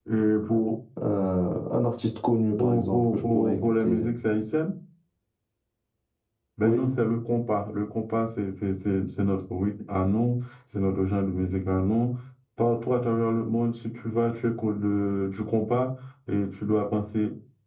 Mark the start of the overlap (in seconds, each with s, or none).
2.6 s